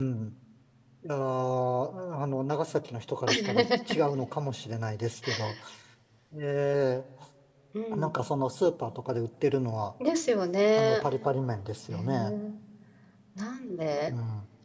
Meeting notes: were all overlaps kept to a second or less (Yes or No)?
Yes